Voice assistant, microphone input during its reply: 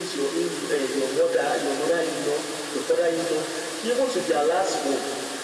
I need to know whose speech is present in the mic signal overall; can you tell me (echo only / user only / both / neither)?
echo only